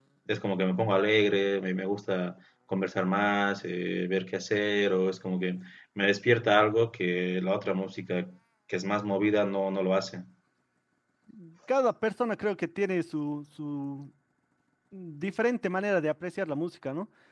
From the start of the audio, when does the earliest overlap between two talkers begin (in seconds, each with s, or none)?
none